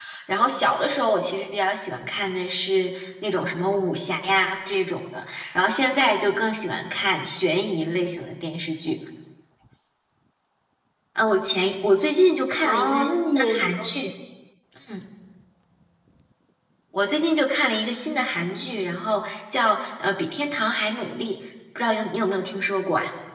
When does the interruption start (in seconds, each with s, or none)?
12.6 s